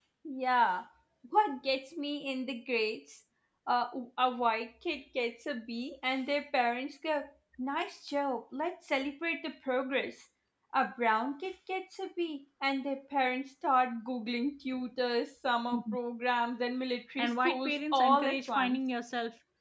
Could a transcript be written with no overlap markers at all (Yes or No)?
No